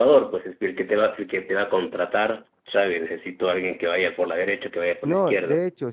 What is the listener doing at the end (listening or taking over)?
taking over